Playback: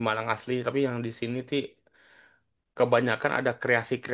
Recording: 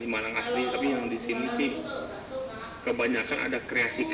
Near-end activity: present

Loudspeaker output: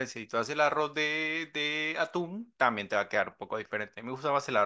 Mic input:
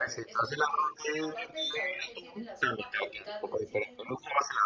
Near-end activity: present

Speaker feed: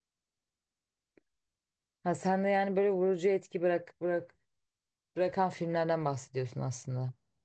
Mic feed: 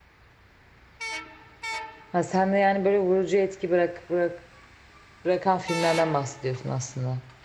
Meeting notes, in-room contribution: none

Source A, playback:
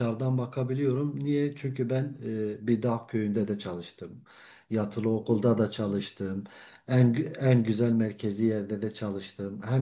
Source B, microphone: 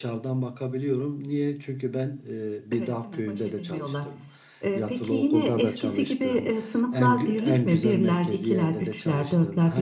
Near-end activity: present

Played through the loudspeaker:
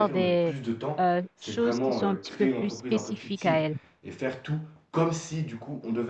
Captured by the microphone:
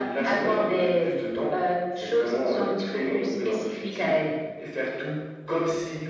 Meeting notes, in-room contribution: none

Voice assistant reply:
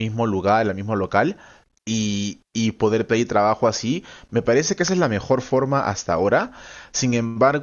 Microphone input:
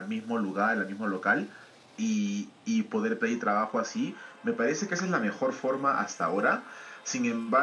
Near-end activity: none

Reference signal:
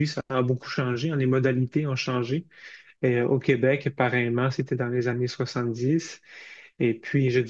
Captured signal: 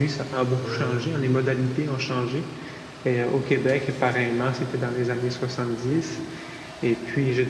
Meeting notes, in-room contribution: present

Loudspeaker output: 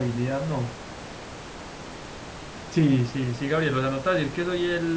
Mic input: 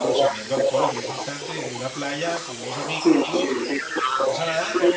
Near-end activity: present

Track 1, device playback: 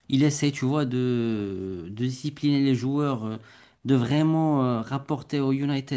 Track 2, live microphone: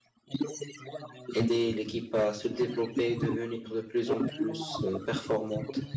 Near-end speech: present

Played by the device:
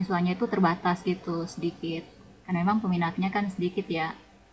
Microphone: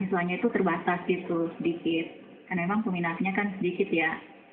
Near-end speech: none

